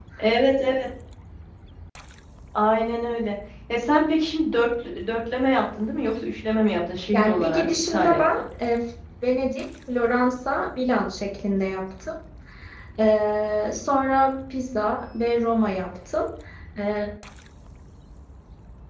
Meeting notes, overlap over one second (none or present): present